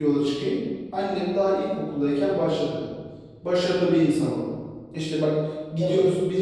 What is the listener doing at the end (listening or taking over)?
listening